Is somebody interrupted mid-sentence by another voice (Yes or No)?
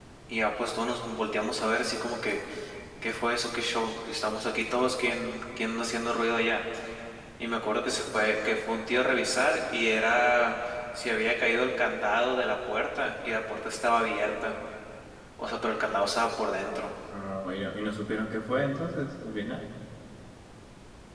No